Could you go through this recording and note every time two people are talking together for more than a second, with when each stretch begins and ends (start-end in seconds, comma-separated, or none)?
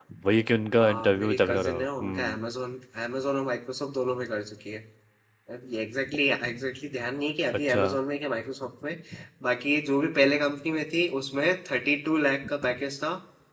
0.8-2.4